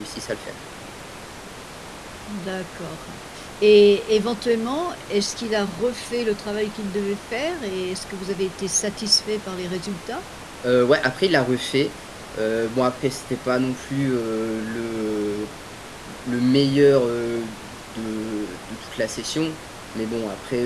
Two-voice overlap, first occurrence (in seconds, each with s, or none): none